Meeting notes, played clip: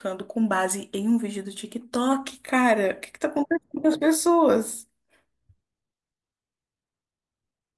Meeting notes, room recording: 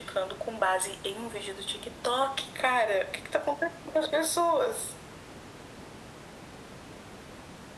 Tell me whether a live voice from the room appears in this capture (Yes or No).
No